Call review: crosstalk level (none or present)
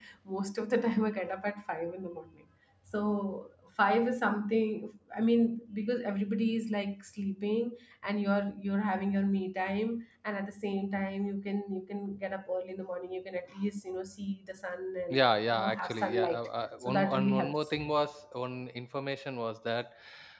present